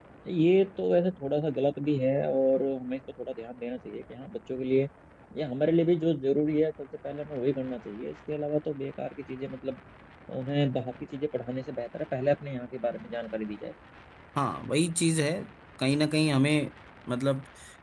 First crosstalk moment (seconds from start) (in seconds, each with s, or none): none